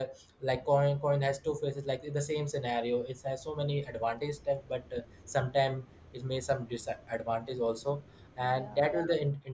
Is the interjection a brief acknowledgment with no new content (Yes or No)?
Yes